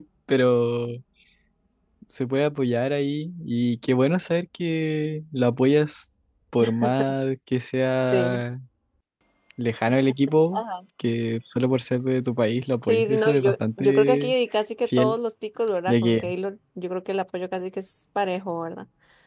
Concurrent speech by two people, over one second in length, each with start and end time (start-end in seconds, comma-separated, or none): 12.8-14.3